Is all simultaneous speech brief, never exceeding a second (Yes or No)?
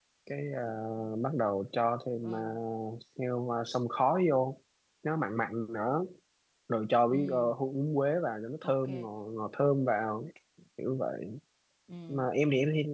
Yes